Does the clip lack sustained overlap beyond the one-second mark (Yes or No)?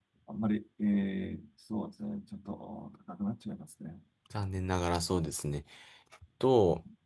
Yes